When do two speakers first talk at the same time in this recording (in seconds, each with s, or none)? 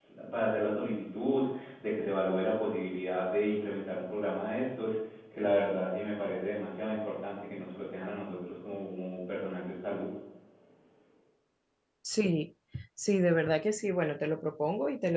none